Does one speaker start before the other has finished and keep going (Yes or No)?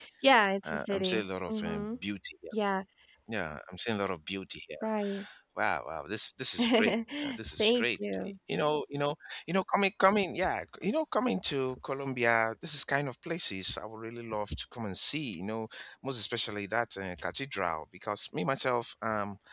Yes